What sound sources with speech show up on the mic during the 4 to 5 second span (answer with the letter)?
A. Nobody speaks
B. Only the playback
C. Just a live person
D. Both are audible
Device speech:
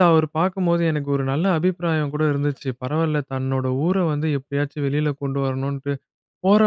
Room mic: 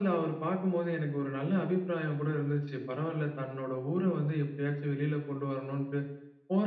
B